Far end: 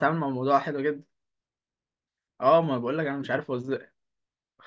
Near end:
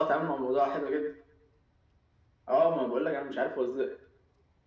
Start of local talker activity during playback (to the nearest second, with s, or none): none